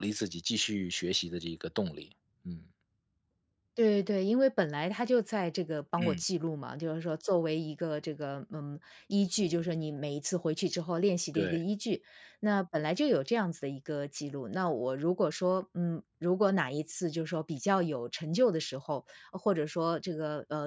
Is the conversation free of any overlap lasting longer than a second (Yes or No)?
Yes